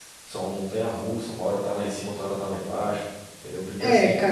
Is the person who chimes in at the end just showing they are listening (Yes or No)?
No